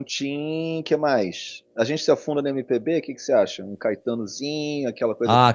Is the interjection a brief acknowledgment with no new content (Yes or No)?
No